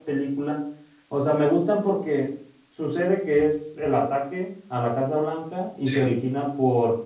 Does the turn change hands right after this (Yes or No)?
No